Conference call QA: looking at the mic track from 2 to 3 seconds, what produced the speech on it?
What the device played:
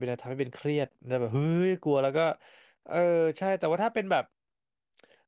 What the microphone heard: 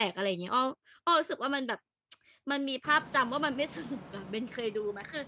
user only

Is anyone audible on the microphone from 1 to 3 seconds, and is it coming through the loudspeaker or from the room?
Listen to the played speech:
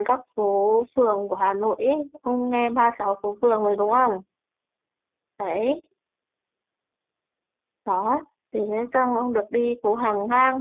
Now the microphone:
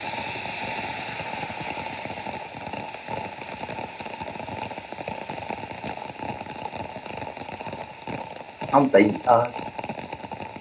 neither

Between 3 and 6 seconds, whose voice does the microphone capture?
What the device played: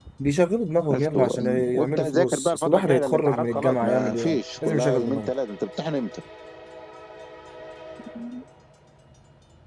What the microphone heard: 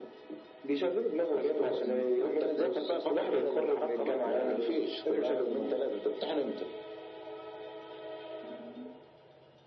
echo only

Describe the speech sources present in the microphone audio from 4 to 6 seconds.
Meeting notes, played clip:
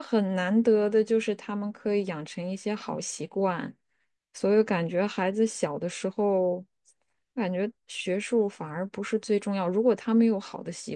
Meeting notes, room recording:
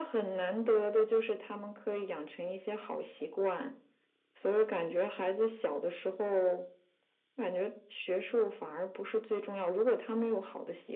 echo only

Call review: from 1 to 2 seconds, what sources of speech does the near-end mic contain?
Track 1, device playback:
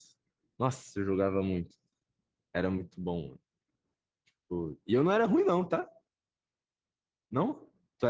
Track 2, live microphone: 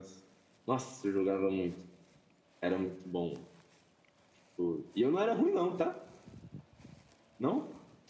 echo only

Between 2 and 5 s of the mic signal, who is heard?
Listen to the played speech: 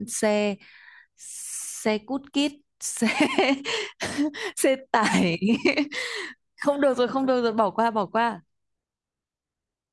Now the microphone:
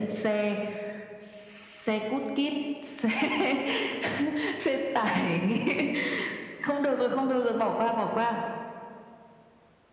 echo only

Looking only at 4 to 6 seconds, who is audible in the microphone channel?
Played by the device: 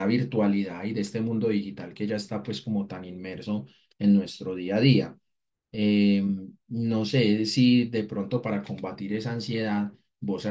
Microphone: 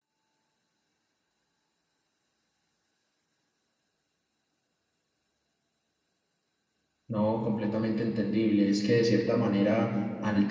neither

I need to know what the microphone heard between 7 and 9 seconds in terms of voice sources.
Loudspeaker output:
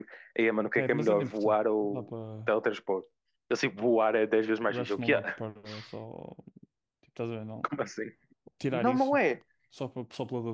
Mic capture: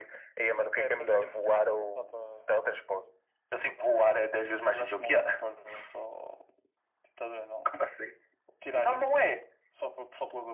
echo only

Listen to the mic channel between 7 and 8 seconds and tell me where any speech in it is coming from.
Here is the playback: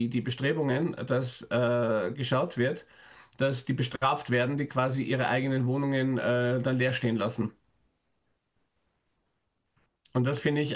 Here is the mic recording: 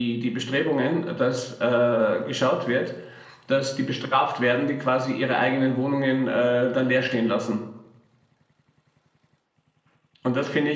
echo only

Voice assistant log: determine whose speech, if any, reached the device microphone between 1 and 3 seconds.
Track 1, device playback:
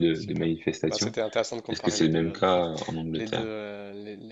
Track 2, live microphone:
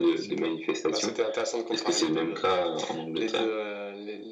echo only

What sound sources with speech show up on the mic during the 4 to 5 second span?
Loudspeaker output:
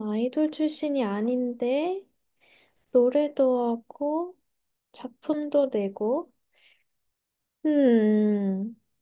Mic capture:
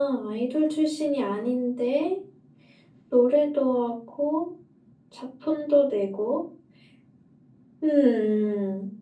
echo only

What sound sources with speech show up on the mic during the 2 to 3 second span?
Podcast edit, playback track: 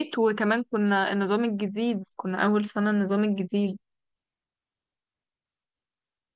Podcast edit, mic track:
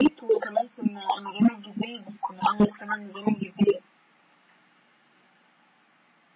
echo only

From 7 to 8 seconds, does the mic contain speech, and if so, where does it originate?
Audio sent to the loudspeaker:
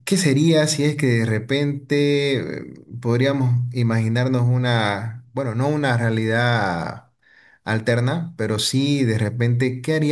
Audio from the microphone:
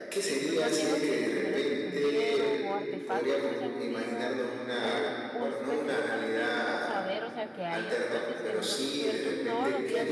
both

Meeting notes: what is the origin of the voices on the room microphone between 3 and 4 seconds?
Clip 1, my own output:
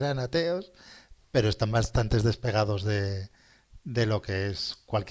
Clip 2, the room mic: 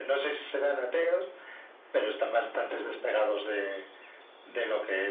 echo only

